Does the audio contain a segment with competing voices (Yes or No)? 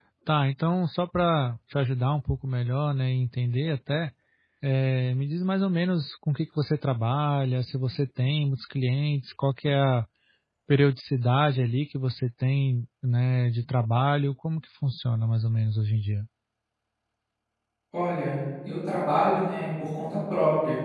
No